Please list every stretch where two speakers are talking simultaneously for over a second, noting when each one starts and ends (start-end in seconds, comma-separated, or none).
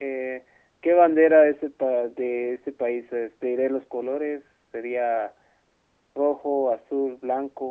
none